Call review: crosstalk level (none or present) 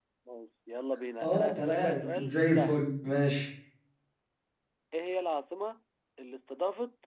present